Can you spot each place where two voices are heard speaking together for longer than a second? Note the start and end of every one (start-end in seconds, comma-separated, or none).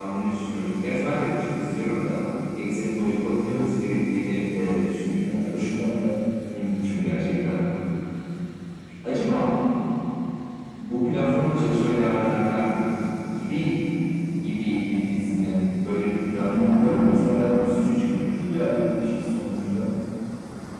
16.3-17.7